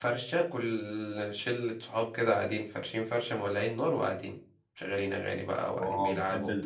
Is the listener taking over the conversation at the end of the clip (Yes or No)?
Yes